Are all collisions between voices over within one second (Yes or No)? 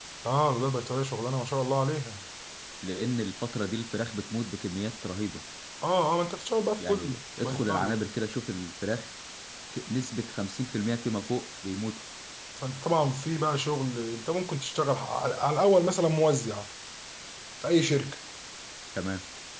No